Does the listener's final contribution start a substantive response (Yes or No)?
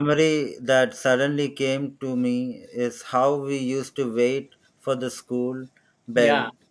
No